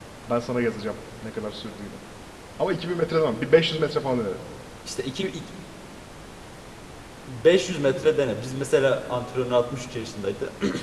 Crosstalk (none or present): none